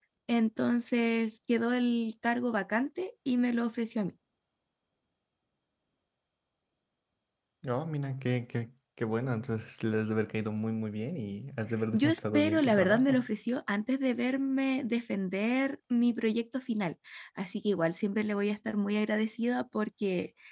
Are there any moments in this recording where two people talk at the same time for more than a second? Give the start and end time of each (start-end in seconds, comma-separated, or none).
11.9-13.2